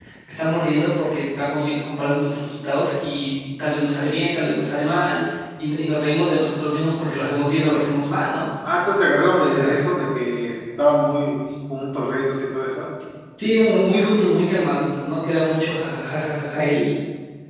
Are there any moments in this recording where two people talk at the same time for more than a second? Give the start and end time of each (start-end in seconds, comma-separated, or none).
none